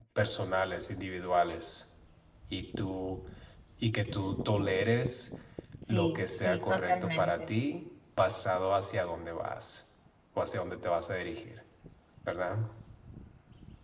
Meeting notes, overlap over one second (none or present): present